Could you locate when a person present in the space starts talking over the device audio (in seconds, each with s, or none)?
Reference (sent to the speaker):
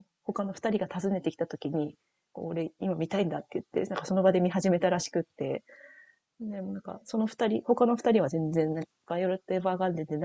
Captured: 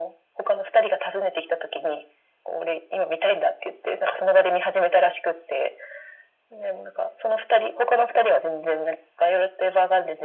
none